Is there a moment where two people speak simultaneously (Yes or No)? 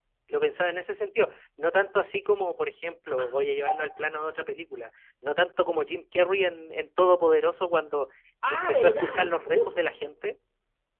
Yes